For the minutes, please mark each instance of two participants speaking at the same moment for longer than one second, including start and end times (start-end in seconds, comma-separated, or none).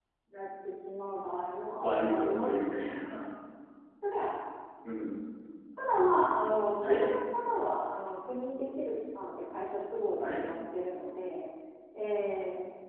1.8-3.0